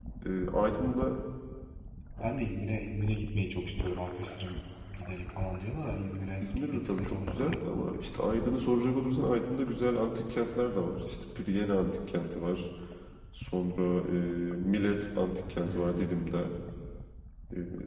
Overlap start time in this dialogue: 6.4 s

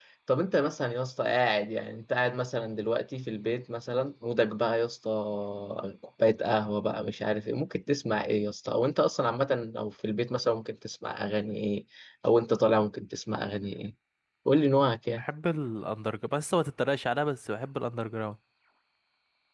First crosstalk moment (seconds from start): none

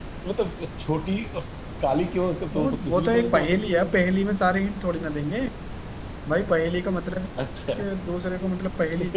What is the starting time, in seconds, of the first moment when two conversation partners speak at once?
2.5 s

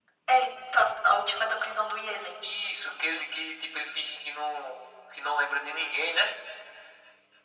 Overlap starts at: none

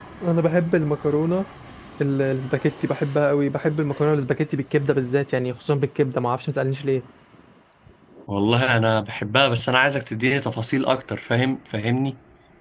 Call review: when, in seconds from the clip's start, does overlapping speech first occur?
none

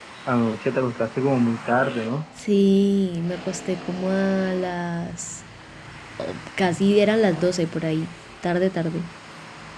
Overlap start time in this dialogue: none

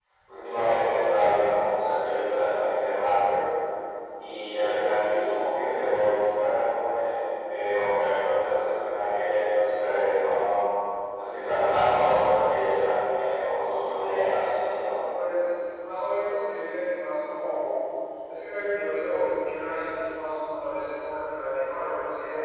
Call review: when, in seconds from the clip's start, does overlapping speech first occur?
none

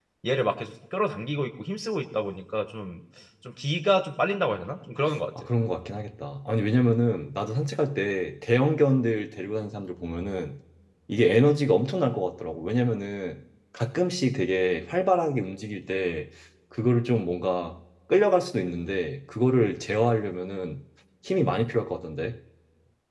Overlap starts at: none

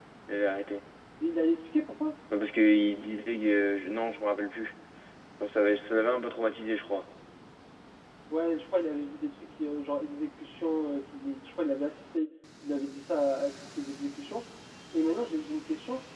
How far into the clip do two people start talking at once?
none

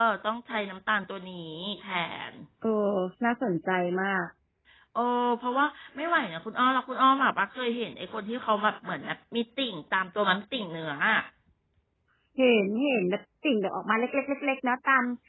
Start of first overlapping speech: none

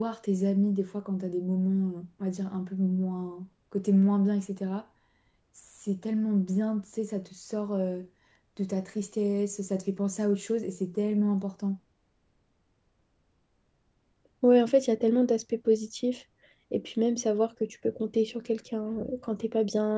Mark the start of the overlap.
none

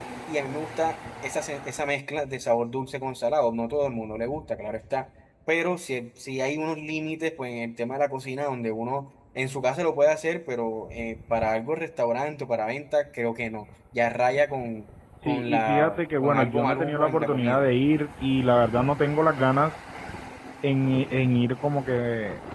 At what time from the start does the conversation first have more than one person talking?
15.2 s

